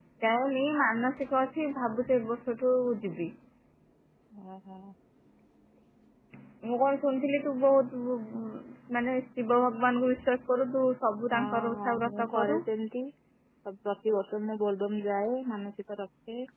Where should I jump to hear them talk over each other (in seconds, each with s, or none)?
11.3 s